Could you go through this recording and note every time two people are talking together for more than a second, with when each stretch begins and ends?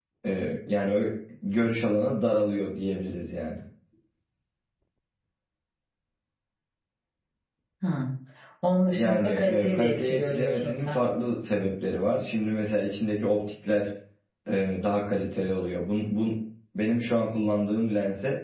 8.9-11.0

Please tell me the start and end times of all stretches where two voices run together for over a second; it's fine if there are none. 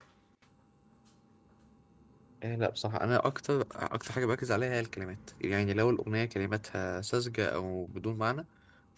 none

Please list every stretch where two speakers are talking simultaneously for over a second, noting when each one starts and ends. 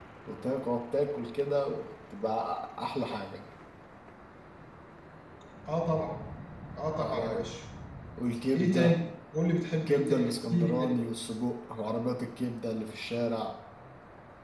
9.7-11.0

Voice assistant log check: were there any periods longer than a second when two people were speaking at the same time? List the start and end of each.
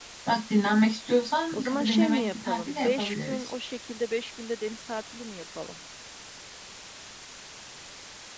1.5-3.4

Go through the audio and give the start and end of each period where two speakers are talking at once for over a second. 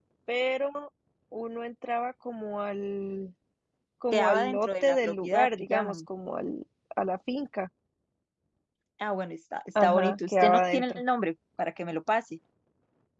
4.1-6.0, 9.8-11.0

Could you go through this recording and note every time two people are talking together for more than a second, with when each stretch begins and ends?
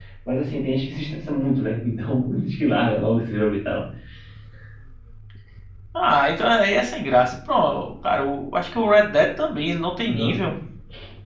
none

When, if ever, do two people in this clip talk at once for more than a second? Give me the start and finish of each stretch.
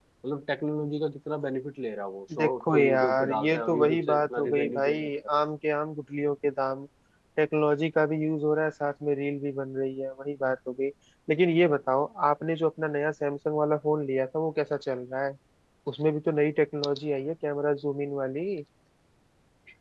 2.4-5.1

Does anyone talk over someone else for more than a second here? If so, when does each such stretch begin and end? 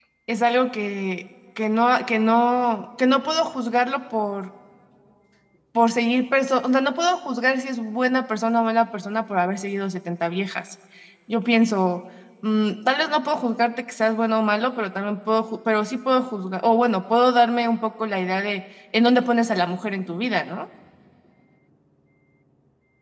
none

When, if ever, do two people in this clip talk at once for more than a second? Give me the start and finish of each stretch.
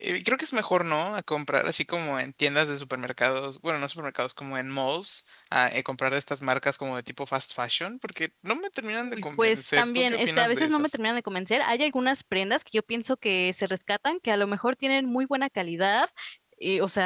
9.0-11.0

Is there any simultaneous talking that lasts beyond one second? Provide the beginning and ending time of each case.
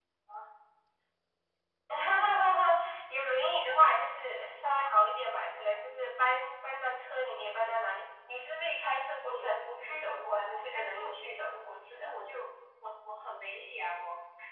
9.3-11.4

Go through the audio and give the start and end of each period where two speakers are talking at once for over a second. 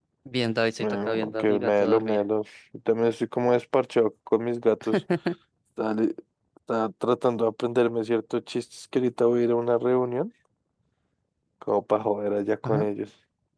0.8-2.2

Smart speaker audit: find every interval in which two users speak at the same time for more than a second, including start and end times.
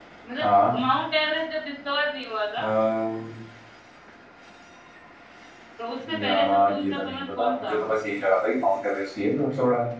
6.2-7.8

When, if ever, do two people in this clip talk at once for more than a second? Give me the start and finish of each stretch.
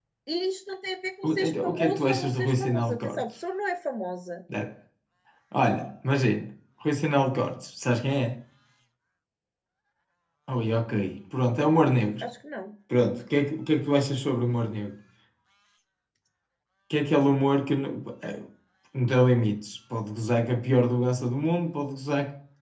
1.2-3.2

